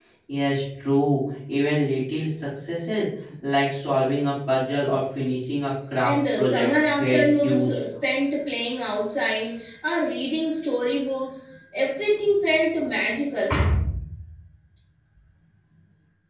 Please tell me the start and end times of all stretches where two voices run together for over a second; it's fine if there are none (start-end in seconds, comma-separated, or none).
6.0-7.8